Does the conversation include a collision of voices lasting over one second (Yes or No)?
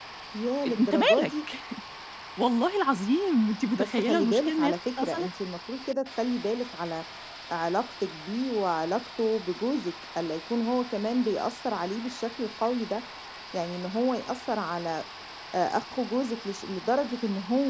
Yes